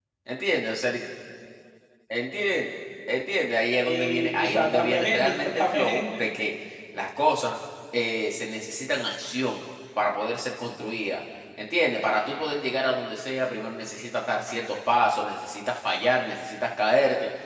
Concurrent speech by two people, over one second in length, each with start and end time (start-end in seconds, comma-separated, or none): 3.9-6.2